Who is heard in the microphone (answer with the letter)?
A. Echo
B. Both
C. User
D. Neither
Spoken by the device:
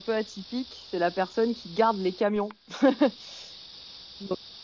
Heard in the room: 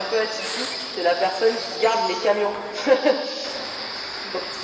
A